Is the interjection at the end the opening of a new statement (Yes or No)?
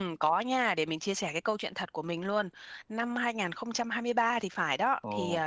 No